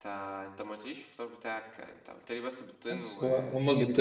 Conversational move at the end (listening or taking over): taking over